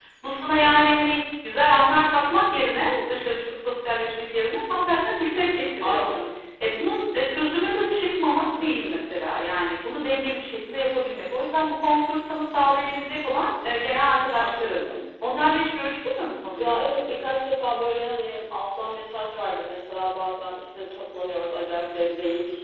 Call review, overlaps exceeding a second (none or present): none